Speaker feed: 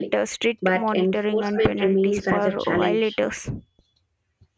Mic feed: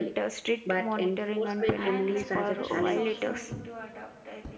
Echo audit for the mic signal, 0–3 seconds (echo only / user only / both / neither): both